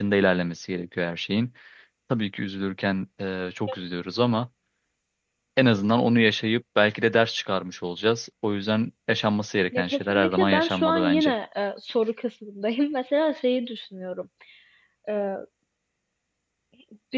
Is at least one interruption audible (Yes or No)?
Yes